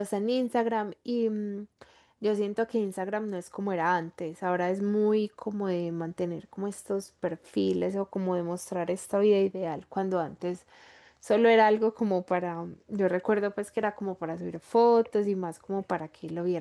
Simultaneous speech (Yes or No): No